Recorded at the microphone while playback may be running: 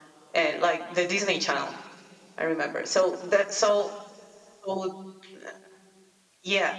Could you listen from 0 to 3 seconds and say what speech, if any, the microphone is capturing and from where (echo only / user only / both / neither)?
echo only